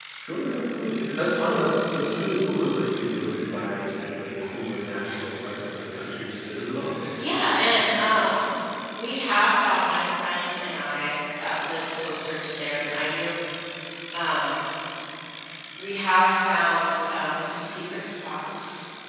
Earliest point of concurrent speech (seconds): none

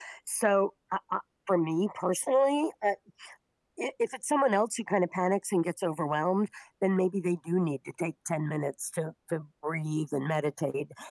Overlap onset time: none

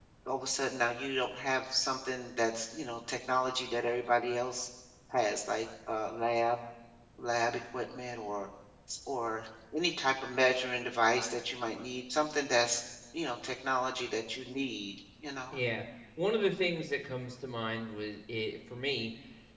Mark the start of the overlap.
none

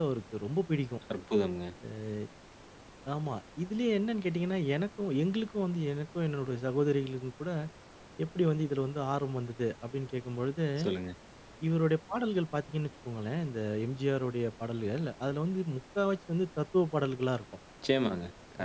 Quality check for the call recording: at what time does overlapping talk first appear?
none

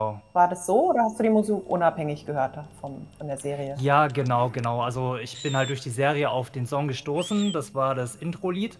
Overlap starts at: none

